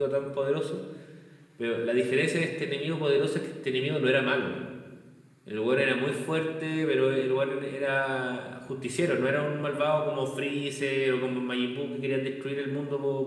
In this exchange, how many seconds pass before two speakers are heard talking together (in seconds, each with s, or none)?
none